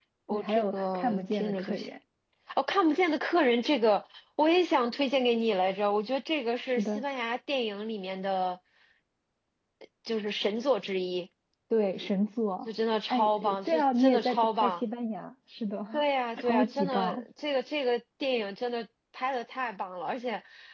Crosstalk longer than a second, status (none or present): present